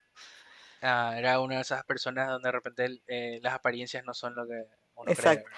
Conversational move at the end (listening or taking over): taking over